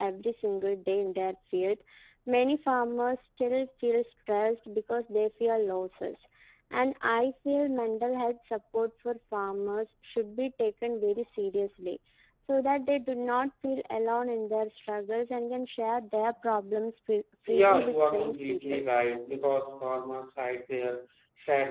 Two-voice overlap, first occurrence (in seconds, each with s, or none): 17.5 s